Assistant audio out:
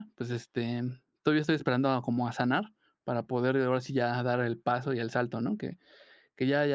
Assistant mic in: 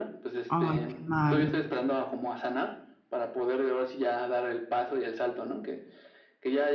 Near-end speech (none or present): present